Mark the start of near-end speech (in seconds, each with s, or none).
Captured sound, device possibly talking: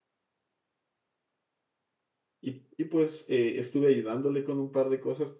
2.4 s